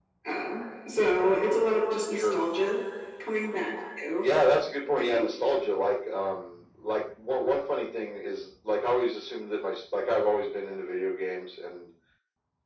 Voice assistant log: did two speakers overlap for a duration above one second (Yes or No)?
No